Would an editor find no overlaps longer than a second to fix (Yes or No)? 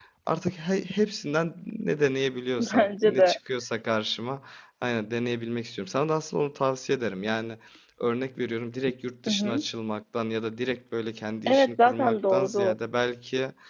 No